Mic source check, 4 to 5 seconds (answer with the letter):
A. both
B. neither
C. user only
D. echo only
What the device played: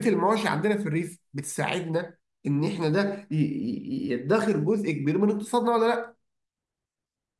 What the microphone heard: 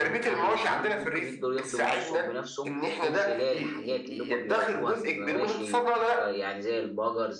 A